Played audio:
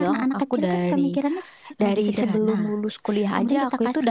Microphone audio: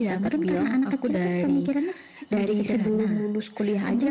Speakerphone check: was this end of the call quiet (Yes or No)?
Yes